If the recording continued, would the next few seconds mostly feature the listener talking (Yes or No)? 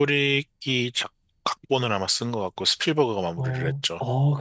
Yes